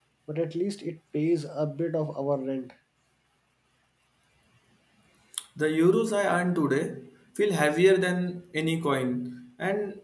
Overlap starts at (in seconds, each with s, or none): none